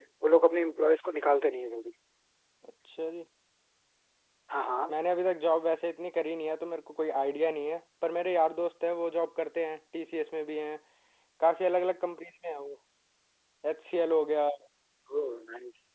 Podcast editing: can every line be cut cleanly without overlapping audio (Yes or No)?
Yes